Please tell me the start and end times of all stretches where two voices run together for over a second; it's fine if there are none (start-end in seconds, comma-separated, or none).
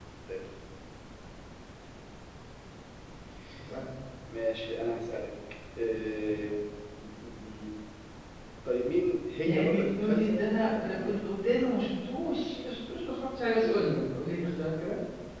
9.4-11.2